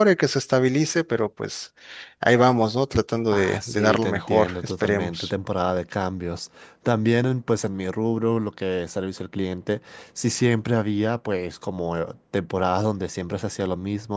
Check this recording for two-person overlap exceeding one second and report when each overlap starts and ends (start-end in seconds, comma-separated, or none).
3.3-5.3